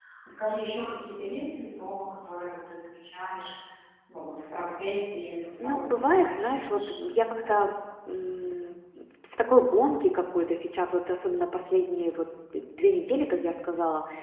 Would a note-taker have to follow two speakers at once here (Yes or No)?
Yes